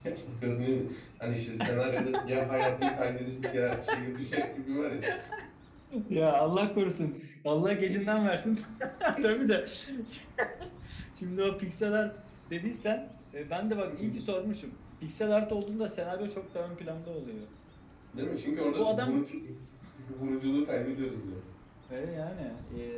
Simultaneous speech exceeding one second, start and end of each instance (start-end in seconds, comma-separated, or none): none